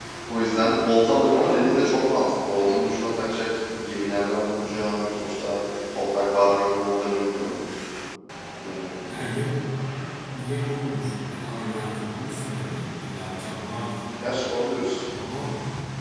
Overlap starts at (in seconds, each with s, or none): none